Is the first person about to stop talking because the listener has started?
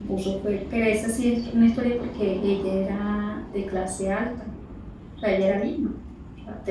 No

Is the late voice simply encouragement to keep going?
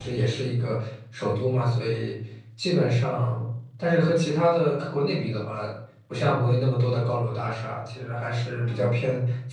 Yes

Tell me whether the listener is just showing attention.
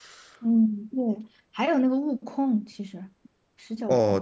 No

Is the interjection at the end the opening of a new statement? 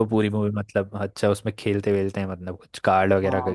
Yes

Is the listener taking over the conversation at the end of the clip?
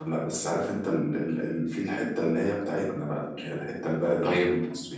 Yes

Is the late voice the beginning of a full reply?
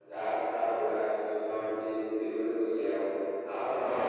Yes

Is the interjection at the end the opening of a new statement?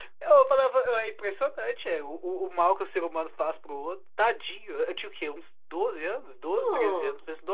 No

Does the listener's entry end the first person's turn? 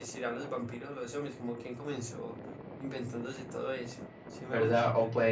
Yes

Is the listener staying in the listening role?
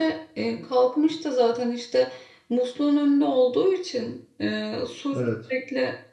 Yes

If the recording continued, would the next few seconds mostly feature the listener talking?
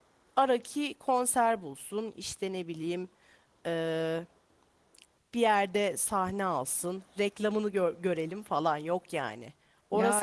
No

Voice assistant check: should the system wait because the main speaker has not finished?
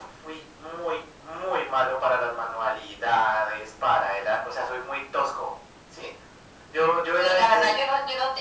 No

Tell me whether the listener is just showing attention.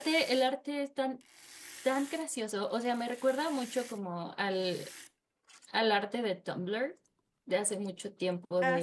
Yes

